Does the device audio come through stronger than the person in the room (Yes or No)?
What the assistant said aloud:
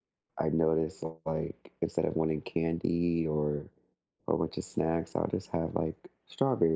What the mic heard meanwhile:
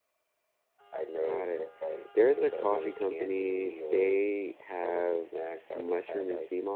No